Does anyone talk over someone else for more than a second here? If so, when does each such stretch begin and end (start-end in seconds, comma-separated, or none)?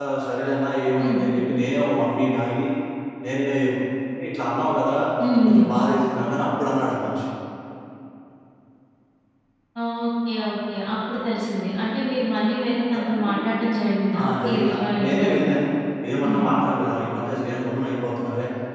14.2-15.4